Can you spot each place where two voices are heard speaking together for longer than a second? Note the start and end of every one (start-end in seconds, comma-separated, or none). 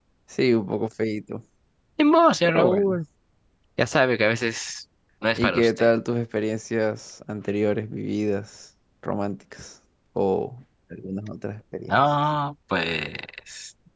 none